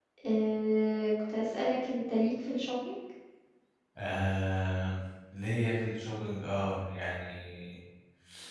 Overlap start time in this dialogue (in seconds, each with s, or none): none